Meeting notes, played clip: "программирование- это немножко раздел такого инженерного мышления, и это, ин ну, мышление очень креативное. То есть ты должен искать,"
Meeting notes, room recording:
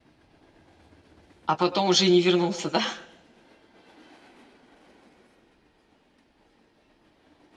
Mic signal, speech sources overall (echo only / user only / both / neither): user only